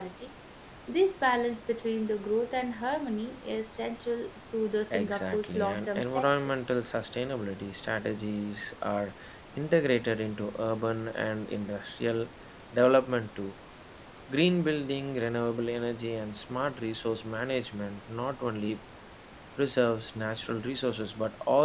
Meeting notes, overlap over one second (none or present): present